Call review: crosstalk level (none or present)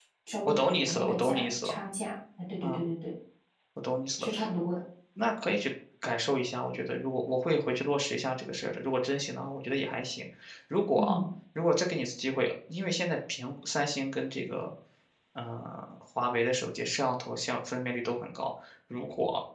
present